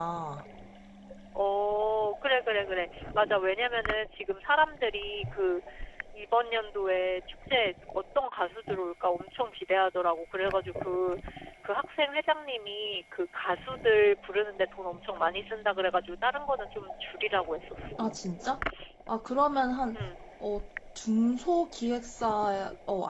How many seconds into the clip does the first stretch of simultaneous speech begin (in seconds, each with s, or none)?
none